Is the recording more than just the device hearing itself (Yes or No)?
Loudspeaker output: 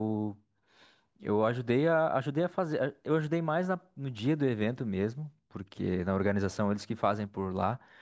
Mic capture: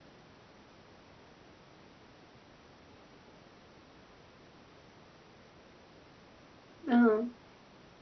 Yes